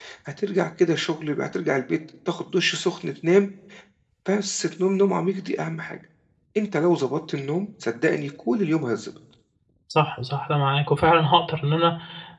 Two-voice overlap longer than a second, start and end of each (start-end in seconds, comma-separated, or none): none